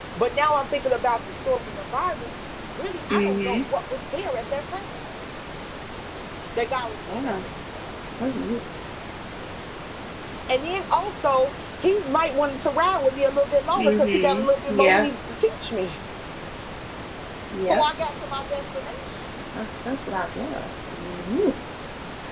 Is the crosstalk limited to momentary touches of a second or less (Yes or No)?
No